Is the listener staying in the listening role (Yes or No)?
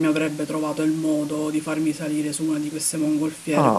Yes